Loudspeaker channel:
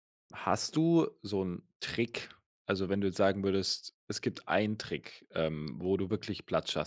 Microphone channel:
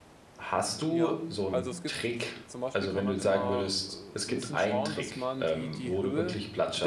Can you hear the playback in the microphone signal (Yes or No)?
Yes